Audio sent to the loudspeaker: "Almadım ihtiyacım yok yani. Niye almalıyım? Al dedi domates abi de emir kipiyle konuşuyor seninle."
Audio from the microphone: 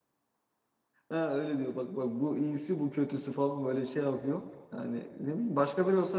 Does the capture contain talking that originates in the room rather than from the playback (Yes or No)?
Yes